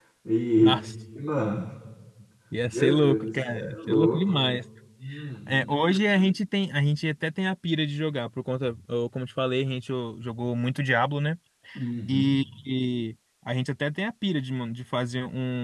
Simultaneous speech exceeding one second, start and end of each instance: 2.7-4.6

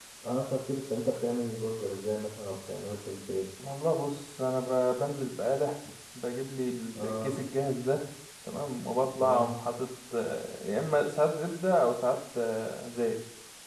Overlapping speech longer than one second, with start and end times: none

